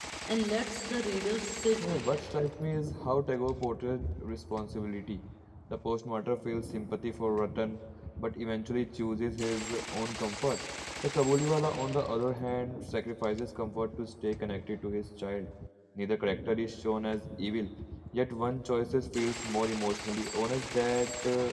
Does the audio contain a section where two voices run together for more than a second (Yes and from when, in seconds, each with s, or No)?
No